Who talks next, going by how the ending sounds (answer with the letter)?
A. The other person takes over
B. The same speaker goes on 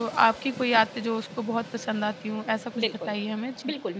A